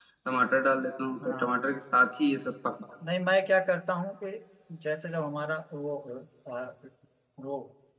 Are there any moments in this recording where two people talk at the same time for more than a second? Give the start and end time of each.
none

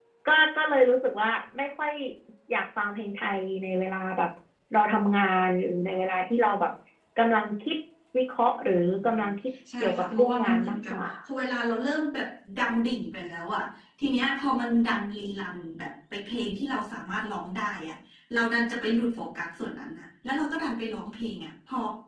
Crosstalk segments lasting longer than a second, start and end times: 9.8-11.1

